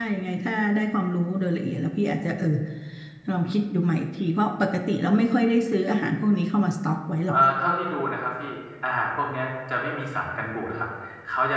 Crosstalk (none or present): none